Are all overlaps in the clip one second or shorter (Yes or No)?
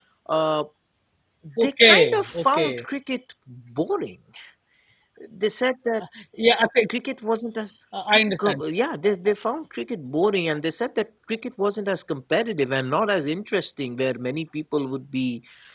No